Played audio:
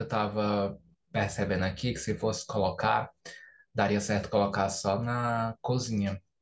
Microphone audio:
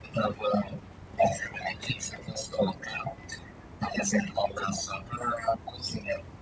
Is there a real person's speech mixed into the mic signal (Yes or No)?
No